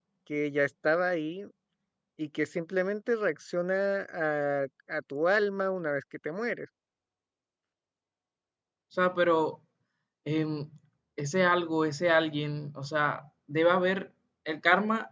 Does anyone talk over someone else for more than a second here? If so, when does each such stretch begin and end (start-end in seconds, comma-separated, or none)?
none